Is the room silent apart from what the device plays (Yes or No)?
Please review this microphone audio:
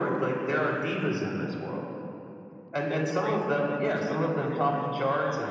No